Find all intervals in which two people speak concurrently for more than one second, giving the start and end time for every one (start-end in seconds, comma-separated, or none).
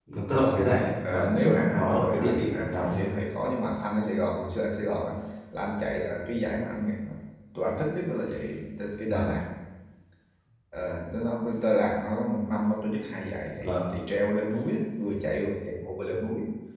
1.0-3.1